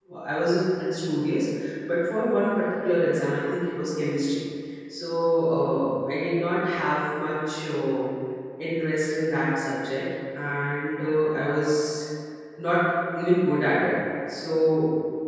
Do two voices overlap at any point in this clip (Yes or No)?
No